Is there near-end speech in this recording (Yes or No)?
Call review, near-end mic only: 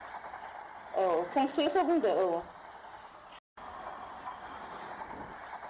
Yes